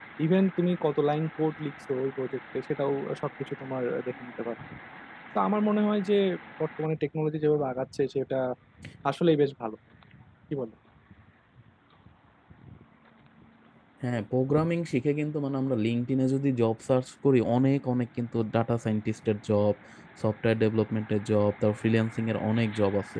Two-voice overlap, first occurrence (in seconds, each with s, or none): none